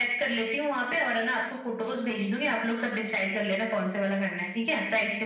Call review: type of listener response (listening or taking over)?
taking over